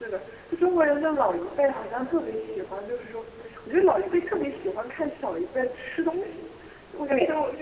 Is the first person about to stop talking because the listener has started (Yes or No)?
No